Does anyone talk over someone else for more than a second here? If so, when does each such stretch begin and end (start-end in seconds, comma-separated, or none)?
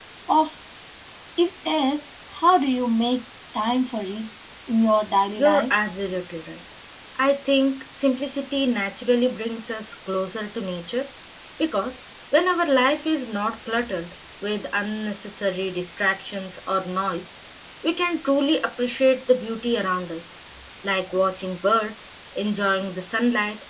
none